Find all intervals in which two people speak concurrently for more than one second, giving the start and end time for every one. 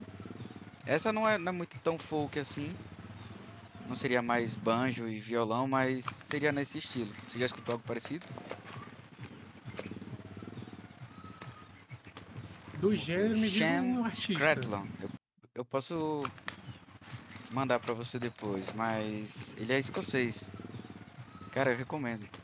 12.8-14.7

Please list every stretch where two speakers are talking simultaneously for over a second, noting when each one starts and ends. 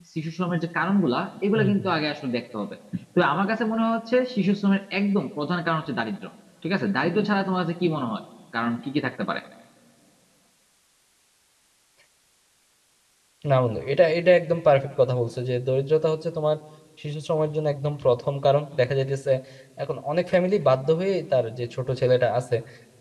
none

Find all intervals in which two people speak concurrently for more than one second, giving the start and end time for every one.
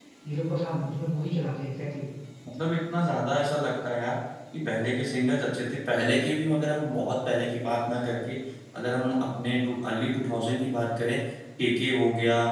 none

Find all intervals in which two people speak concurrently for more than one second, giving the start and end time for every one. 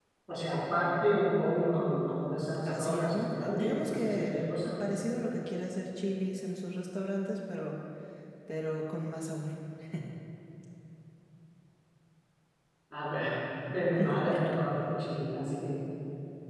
2.6-4.7

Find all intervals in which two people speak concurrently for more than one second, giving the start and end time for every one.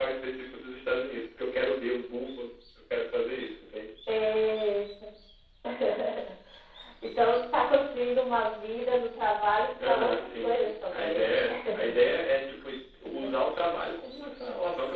9.8-11.3

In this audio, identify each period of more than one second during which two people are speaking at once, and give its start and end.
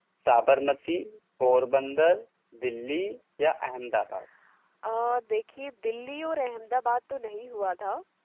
none

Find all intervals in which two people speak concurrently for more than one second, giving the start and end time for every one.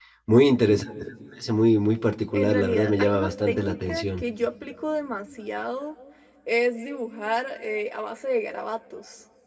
2.3-4.2

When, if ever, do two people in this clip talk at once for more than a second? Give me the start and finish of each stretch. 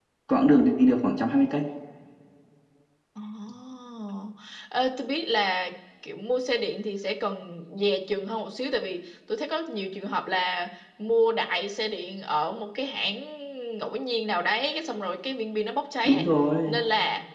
none

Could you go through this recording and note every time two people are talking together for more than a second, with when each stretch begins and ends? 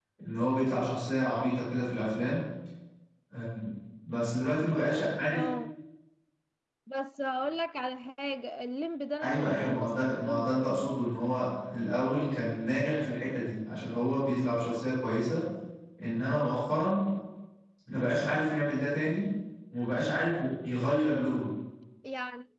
9.2-10.6

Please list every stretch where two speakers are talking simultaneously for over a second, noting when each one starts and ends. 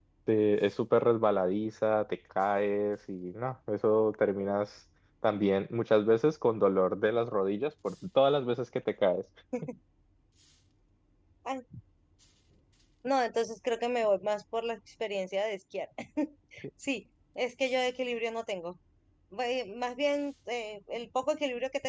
none

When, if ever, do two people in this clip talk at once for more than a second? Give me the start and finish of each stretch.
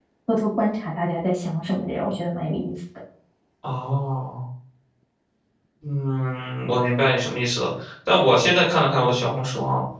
none

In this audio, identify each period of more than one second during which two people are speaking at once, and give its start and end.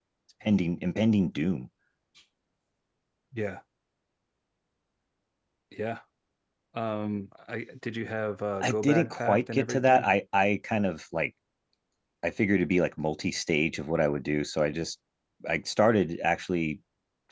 8.6-10.0

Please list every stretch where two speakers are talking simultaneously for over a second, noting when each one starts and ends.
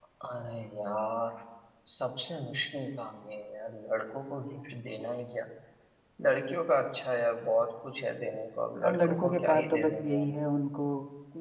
8.8-10.3

